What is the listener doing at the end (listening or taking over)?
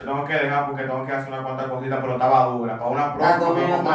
taking over